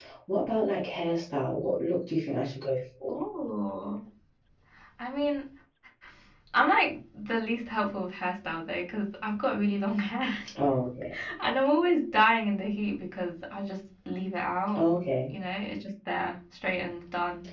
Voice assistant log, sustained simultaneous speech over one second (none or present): none